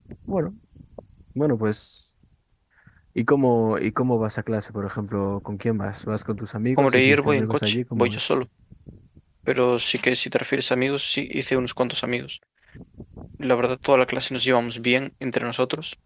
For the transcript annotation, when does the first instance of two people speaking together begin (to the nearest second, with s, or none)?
7 s